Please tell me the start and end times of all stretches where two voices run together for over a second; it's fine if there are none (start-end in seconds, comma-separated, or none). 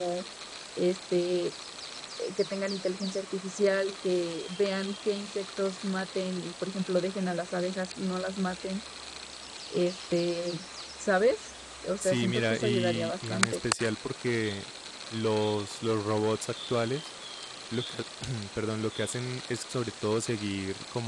12.0-13.6